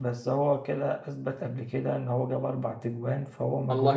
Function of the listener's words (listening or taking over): taking over